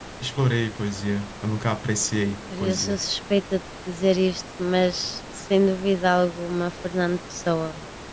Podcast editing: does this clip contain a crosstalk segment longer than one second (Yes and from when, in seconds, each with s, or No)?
No